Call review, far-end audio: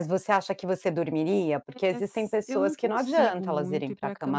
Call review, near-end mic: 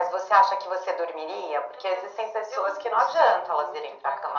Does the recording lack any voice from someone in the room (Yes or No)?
Yes